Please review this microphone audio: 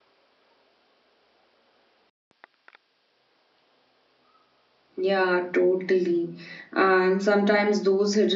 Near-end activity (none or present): present